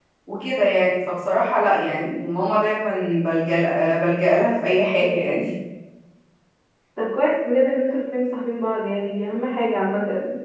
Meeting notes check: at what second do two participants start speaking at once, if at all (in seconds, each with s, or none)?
none